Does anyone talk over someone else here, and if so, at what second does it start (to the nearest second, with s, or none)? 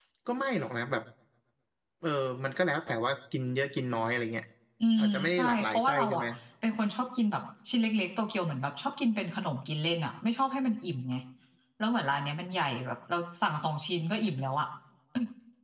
5 s